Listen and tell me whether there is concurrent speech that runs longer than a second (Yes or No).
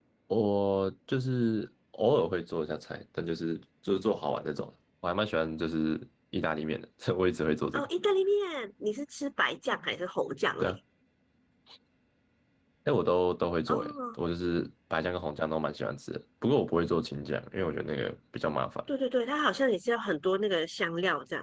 No